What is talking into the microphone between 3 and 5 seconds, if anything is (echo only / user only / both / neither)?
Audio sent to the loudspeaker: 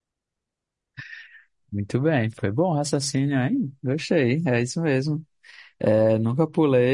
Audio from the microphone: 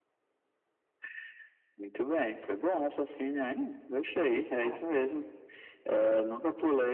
both